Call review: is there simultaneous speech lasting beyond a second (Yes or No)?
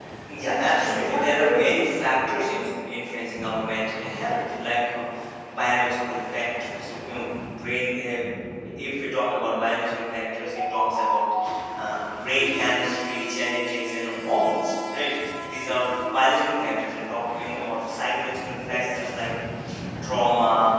Yes